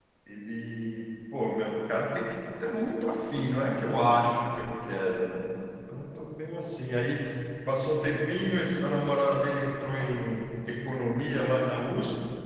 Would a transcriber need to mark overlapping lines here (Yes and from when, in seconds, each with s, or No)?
No